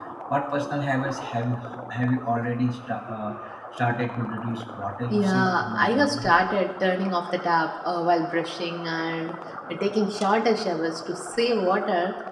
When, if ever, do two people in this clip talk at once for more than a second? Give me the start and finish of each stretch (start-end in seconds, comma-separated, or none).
5.1-6.4